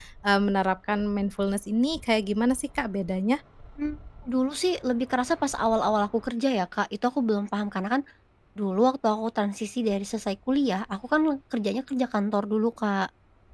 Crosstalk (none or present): none